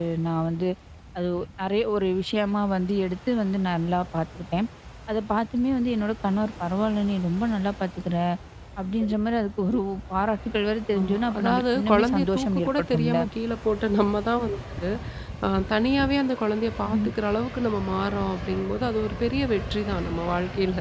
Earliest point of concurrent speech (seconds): 11 s

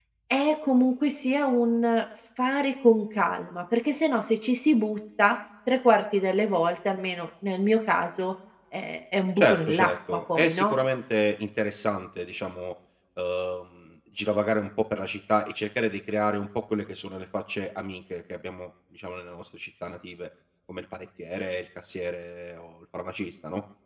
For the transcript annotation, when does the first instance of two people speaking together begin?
9 s

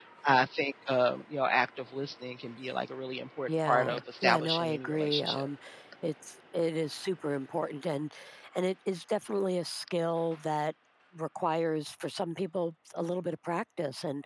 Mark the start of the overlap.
3 s

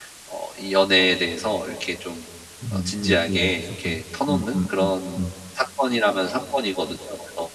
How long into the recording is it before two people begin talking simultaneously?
3 s

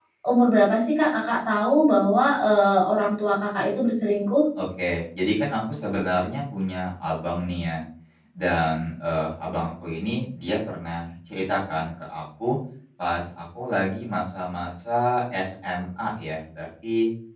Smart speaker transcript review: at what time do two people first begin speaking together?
none

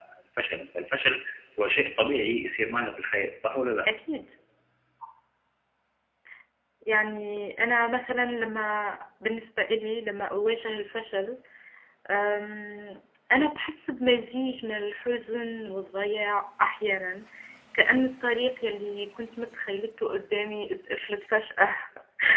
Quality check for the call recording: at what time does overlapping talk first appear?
none

